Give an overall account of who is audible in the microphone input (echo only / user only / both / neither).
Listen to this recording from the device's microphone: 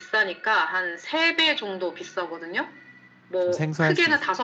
both